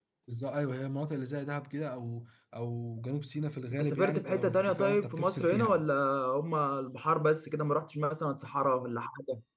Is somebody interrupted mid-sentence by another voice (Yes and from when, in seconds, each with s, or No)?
Yes, from 3.7 s